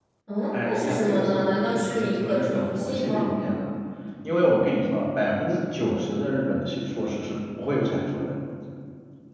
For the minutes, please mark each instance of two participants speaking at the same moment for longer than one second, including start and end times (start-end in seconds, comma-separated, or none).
0.6-3.3